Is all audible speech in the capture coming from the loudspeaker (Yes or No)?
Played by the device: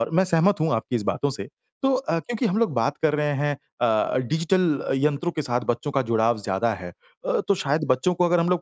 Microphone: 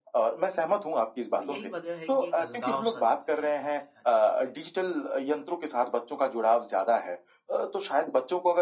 No